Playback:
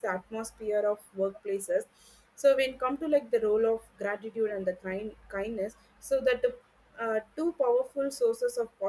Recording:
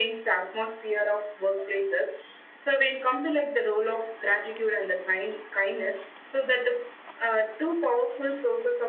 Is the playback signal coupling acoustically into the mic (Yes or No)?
Yes